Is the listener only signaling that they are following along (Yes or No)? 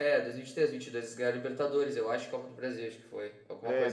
No